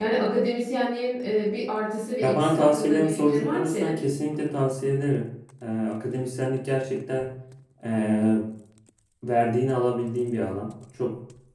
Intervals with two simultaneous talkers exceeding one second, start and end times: 2.2-4.0

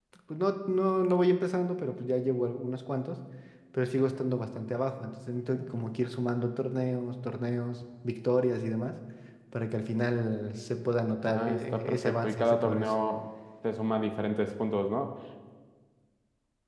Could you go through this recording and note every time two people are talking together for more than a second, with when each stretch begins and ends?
11.2-12.9

